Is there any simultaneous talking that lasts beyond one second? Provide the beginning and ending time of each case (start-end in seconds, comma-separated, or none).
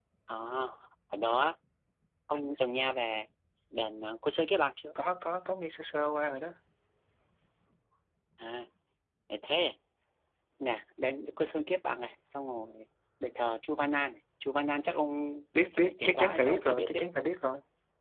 15.8-17.0